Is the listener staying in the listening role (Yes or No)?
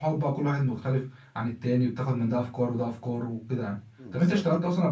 Yes